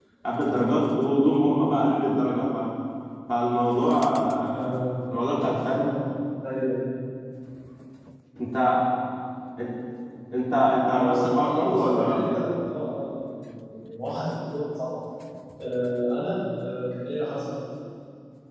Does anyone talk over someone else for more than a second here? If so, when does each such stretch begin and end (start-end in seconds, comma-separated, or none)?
10.9-12.3